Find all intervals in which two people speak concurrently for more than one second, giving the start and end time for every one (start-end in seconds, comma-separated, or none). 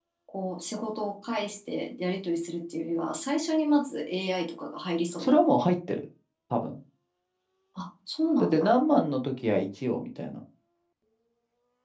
none